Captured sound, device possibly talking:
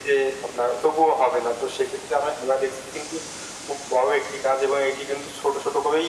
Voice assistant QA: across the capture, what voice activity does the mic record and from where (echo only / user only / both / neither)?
echo only